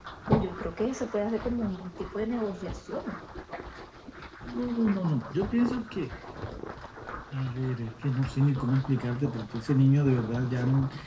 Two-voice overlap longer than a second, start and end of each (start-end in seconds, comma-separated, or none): none